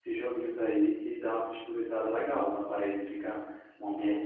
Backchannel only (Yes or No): Yes